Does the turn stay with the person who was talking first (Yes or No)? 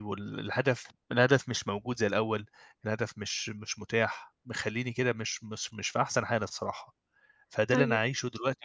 Yes